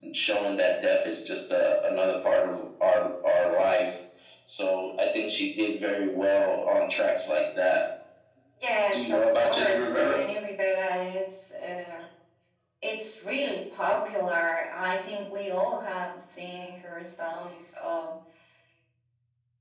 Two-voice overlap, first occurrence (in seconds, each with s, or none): 8.9 s